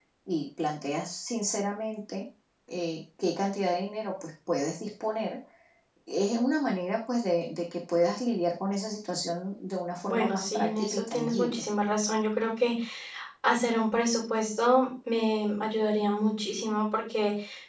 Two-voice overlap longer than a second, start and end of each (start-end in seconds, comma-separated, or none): 10.0-11.7